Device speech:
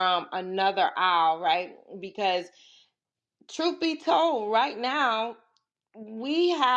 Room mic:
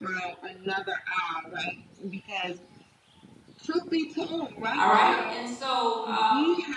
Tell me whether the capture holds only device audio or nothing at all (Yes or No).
No